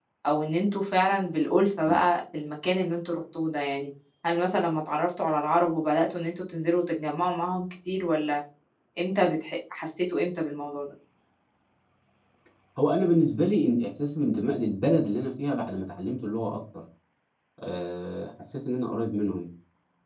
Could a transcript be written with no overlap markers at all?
Yes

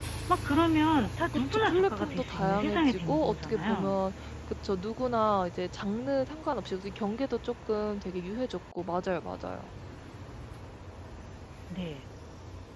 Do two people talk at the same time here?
Yes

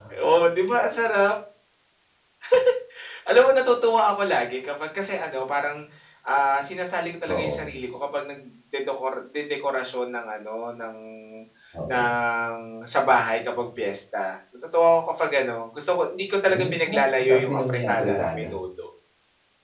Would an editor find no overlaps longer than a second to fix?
No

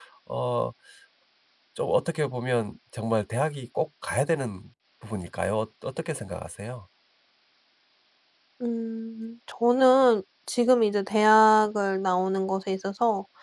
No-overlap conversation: Yes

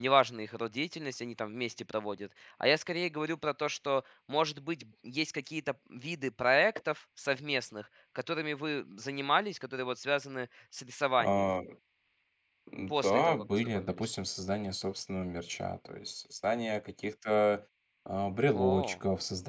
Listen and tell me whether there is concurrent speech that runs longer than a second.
Yes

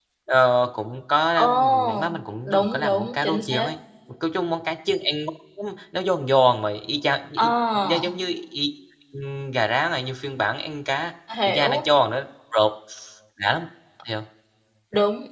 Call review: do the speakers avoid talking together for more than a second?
No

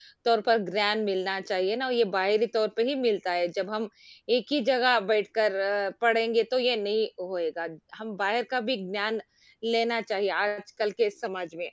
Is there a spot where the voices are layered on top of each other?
No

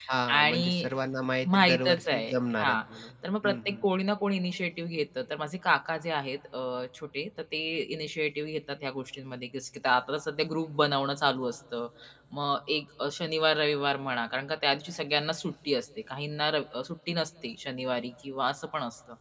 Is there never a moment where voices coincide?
No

